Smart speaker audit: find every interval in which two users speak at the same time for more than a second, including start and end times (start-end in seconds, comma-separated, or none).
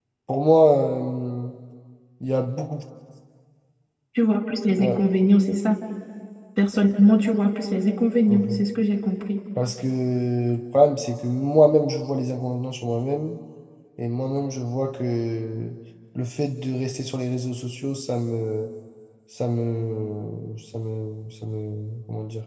none